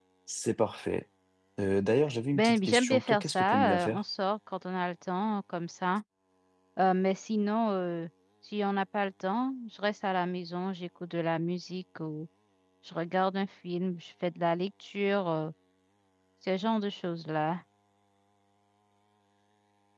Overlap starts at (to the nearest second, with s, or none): 2 s